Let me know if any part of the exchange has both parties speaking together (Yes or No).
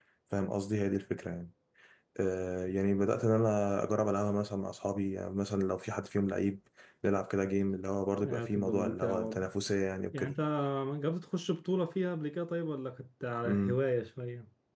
Yes